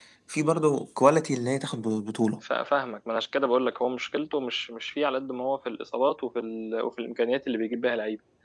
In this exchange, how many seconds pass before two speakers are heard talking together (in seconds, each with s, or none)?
none